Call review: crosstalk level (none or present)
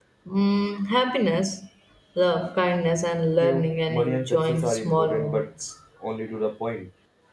present